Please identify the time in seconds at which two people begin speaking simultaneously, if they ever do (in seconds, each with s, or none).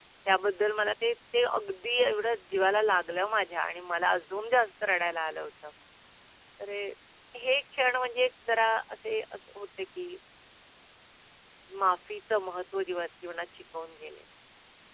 none